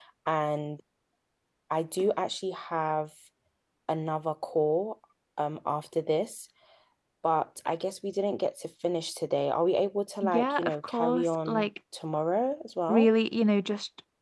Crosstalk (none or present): present